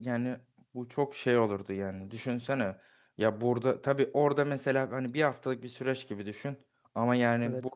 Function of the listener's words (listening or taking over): listening